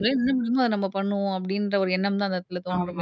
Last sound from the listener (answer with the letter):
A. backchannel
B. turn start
B